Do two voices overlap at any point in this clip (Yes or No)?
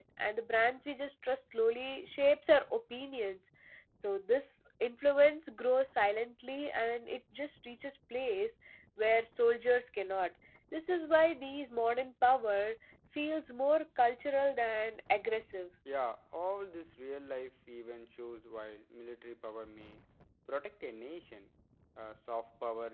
No